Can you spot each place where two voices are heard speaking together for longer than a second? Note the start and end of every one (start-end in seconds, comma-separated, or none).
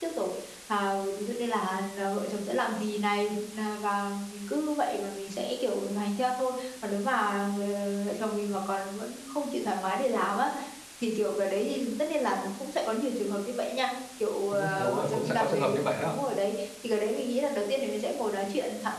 14.5-16.1